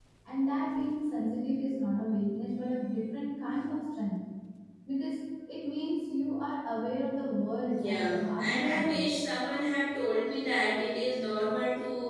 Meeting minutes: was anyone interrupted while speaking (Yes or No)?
Yes